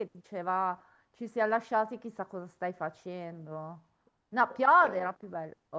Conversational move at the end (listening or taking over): listening